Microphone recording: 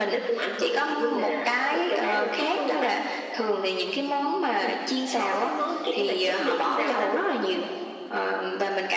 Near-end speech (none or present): none